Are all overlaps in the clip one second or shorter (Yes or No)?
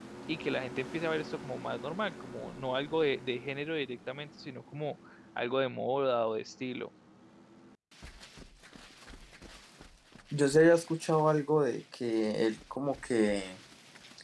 Yes